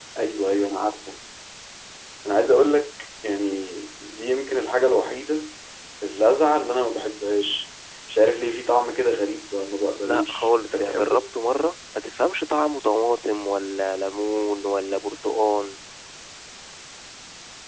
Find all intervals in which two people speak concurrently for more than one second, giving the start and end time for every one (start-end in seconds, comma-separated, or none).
10.0-11.2